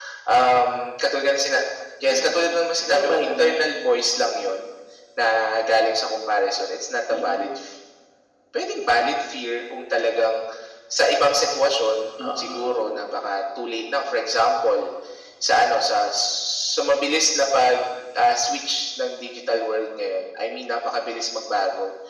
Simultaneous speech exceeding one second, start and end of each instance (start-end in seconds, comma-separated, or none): 2.1-3.6